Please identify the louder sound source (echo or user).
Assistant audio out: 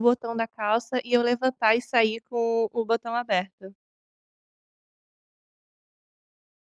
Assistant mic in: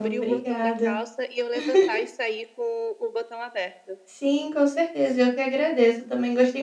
user